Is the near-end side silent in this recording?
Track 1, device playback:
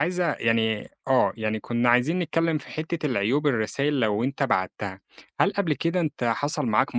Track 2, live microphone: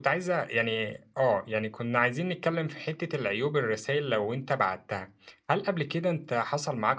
Yes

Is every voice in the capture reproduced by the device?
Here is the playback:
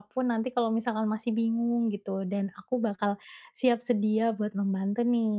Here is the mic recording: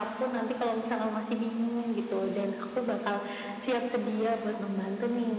Yes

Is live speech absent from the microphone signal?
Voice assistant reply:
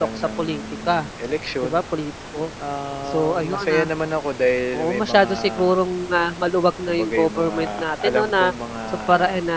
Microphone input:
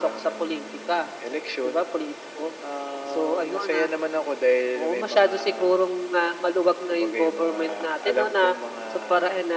Yes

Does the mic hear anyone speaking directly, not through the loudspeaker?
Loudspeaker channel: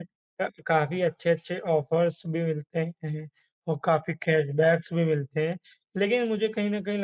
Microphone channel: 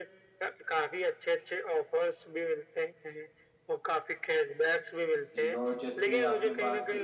Yes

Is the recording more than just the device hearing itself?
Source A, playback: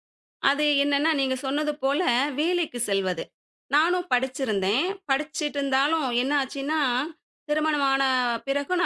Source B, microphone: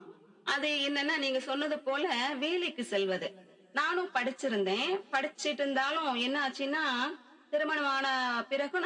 No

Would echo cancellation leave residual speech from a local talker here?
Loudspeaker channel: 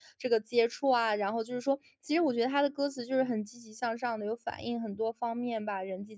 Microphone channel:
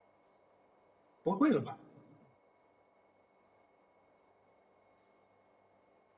Yes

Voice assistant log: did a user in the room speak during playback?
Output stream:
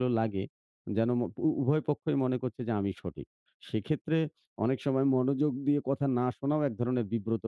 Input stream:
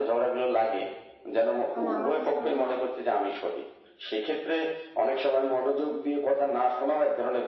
Yes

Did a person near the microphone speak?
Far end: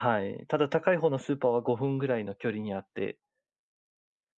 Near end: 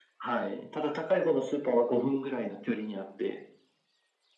No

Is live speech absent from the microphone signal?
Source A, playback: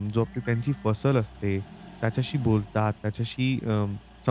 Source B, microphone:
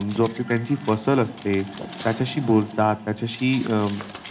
Yes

